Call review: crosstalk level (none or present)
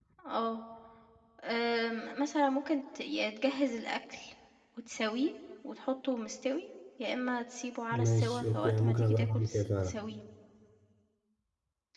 present